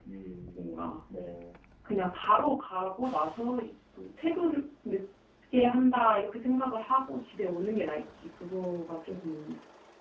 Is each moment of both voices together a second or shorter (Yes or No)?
Yes